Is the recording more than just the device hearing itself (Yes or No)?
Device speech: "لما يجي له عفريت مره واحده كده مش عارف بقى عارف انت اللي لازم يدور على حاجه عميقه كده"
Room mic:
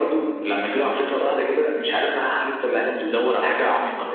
No